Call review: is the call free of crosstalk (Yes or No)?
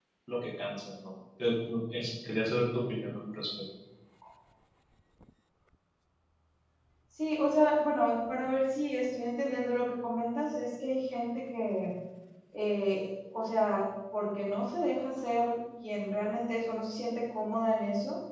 Yes